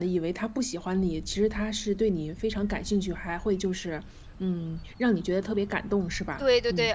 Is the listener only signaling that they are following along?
No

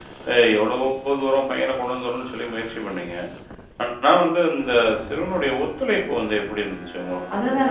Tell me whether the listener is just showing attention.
No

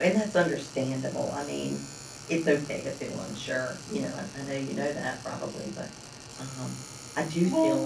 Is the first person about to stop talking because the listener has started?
No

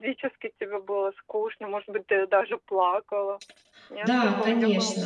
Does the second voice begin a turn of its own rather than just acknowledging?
Yes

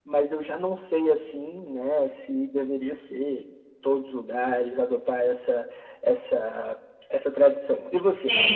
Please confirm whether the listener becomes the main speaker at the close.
Yes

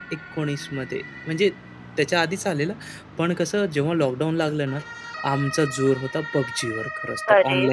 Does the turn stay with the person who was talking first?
No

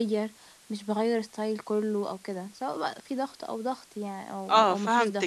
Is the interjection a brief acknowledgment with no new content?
No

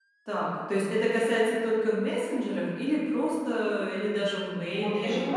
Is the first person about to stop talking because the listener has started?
Yes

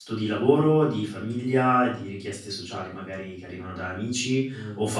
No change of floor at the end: Yes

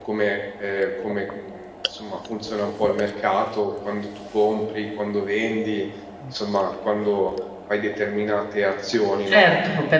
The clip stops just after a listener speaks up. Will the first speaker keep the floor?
No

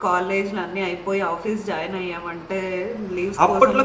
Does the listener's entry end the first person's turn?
Yes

